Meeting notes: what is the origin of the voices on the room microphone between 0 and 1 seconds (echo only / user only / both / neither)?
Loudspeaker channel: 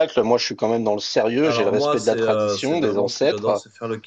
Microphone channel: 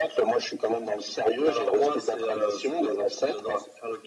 echo only